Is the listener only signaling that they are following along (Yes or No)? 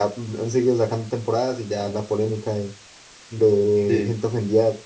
Yes